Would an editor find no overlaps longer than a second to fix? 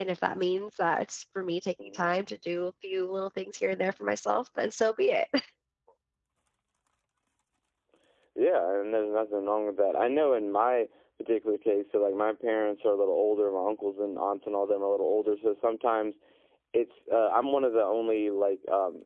Yes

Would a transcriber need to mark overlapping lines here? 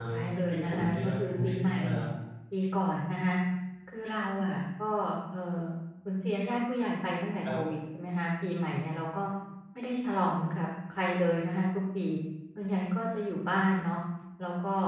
Yes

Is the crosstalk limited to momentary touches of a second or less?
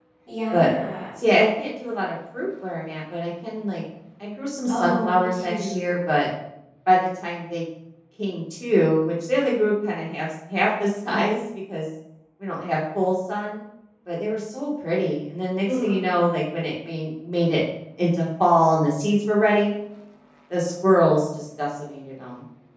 No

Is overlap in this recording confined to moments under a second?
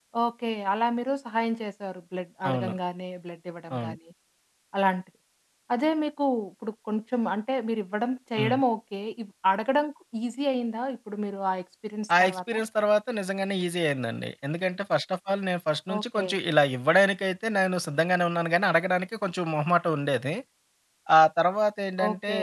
Yes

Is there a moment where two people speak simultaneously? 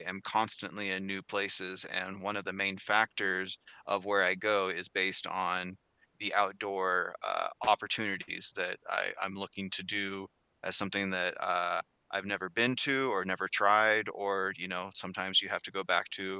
No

